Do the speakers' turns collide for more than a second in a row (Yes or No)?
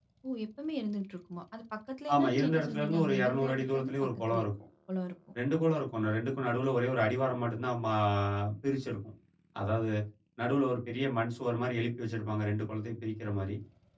Yes